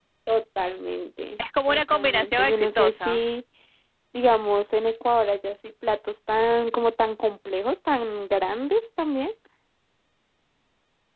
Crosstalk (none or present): present